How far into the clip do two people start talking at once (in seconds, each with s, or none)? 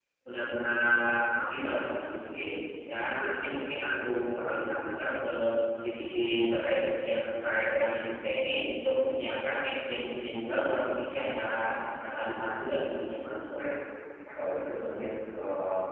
none